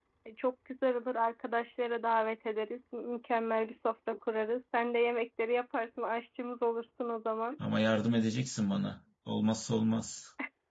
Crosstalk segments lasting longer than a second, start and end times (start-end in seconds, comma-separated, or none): none